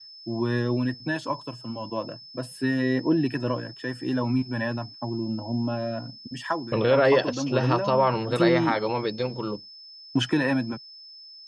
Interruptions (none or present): present